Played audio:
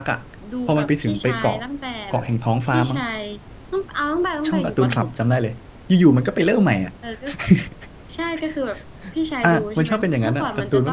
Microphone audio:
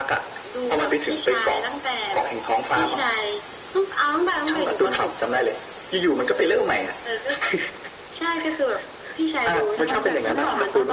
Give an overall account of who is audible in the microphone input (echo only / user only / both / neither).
both